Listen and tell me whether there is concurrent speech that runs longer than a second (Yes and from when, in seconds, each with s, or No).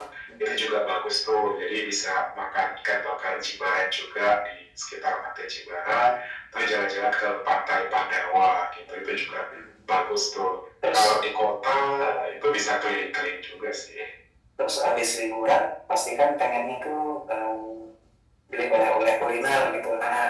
No